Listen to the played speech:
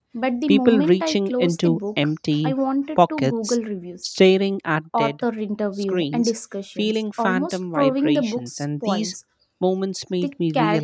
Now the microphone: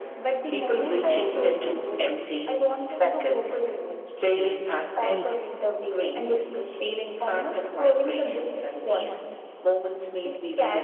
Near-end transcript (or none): faced fully.